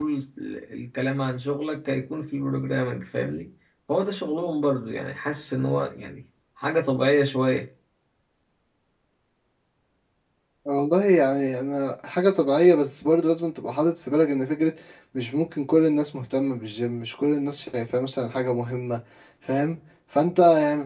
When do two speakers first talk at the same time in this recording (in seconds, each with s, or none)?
none